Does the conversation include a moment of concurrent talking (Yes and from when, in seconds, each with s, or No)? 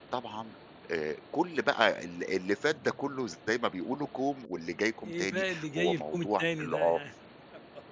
Yes, from 5.0 s